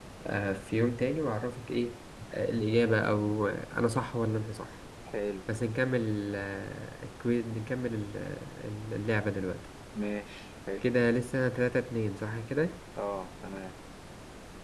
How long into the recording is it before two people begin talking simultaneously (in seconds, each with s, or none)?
none